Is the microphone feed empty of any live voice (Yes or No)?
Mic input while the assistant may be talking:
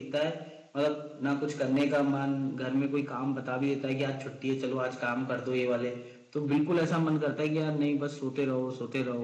Yes